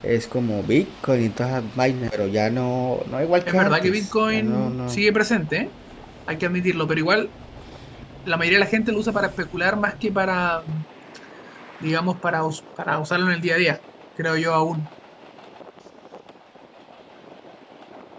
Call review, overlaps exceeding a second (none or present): present